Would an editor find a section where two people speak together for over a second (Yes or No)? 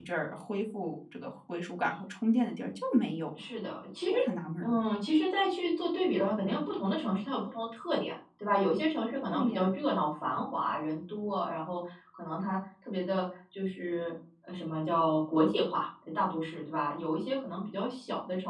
No